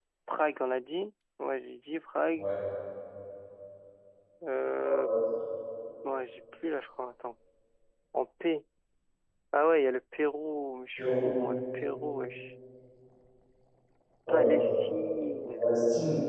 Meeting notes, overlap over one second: none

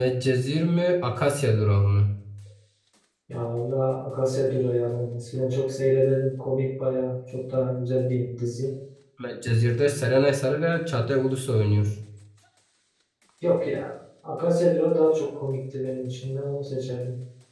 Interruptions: none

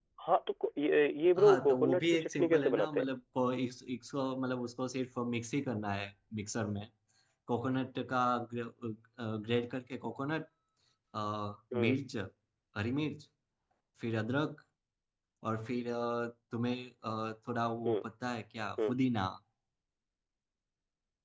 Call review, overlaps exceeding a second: present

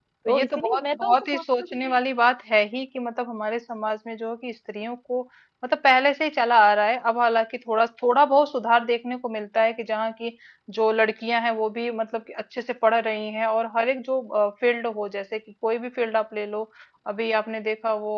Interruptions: present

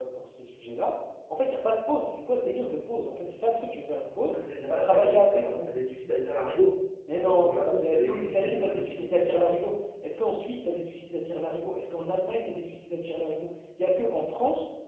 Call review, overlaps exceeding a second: present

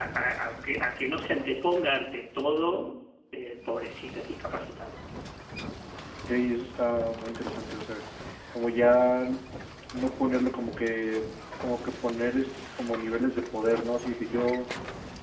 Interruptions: none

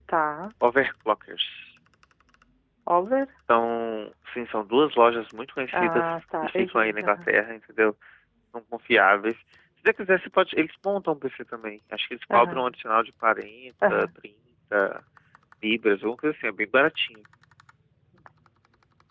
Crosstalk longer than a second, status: present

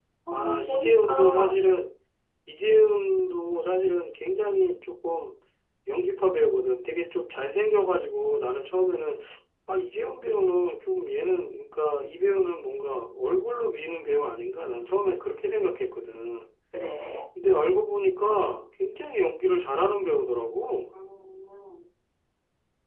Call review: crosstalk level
present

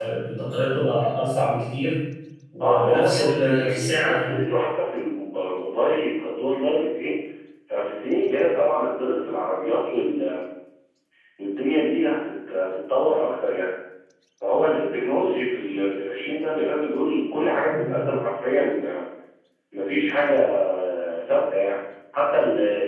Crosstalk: present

